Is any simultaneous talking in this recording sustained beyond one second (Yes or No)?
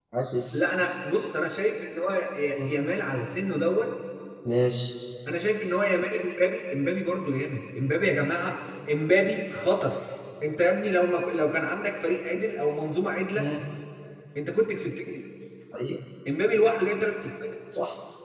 No